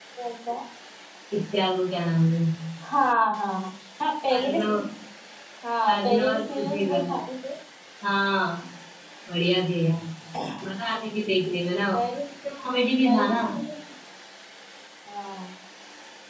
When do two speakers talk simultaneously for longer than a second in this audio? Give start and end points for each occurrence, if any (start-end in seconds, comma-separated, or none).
5.9-7.1